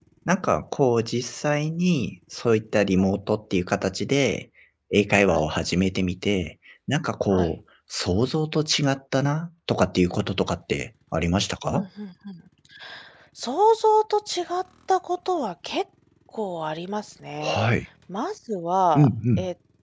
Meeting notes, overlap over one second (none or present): none